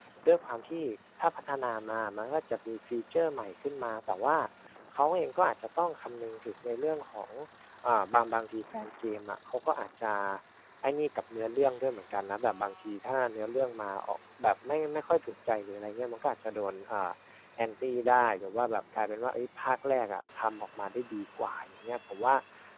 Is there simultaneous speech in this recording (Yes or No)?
No